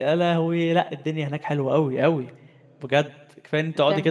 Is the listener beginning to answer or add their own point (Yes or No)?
No